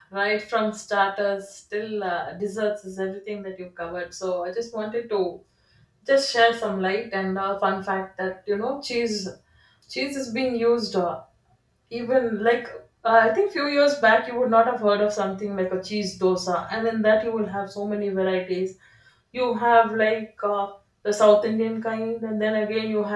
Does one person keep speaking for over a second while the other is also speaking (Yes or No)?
No